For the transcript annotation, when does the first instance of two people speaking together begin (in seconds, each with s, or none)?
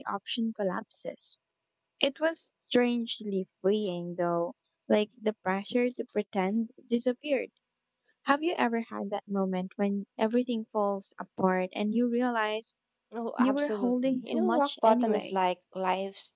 13.4 s